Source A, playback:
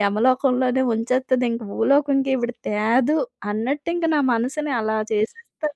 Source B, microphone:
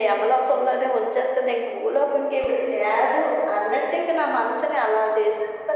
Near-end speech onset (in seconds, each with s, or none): none